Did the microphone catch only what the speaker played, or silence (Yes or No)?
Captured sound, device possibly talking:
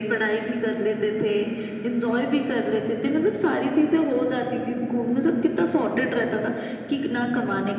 Yes